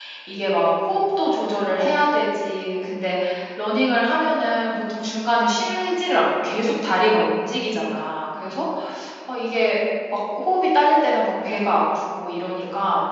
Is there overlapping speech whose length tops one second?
No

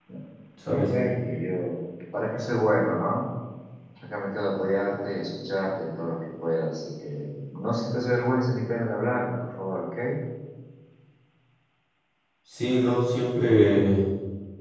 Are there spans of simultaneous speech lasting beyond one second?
No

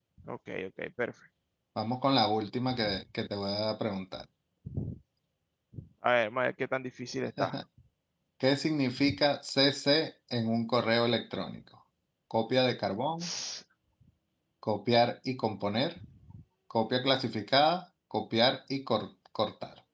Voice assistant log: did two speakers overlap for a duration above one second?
No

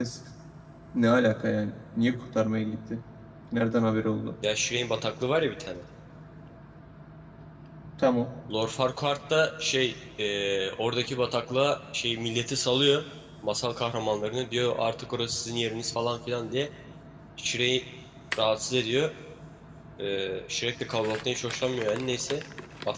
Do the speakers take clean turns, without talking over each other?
Yes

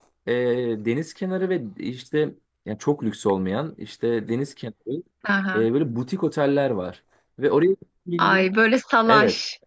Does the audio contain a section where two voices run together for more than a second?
No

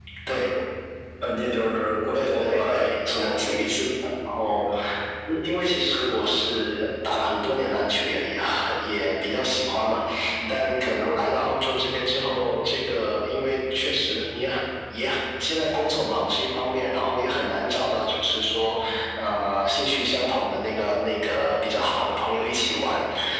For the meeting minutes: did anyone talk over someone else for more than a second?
Yes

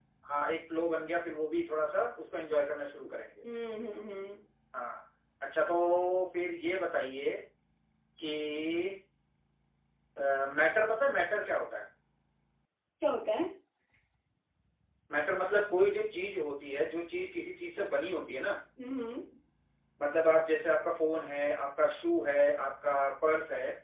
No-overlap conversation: Yes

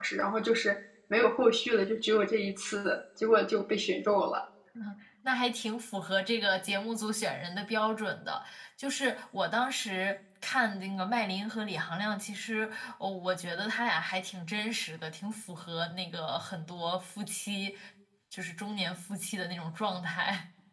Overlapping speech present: No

